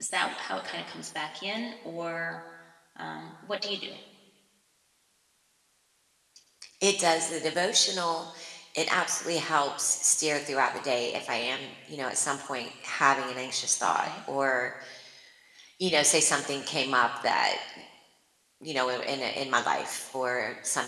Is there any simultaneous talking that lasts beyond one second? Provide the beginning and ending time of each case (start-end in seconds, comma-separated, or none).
none